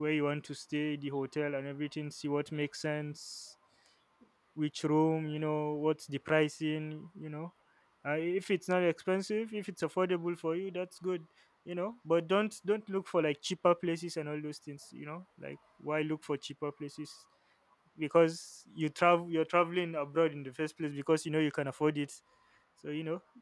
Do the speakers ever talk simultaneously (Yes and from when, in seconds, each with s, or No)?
No